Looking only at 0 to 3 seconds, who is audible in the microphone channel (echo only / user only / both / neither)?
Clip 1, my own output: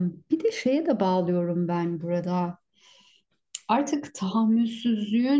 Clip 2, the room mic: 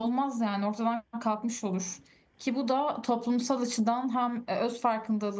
user only